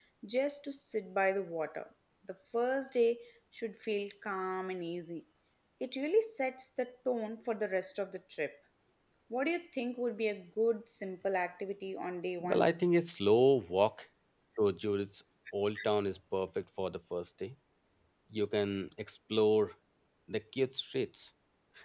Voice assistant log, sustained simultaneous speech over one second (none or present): none